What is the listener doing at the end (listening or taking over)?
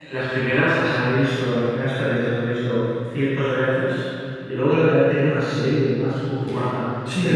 taking over